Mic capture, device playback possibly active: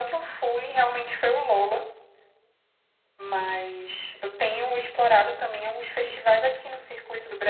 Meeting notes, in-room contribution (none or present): none